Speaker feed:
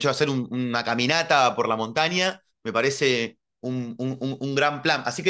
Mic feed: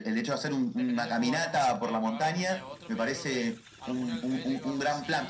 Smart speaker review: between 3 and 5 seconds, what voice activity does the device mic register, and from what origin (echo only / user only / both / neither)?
both